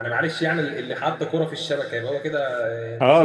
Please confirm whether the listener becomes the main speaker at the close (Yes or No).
Yes